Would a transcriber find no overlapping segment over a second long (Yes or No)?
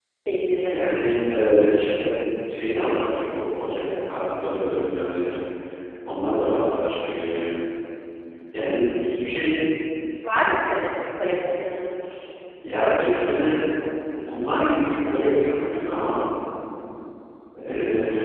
Yes